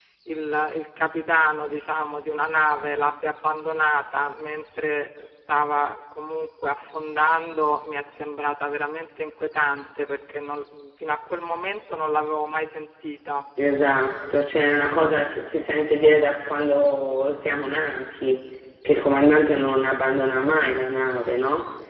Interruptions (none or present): none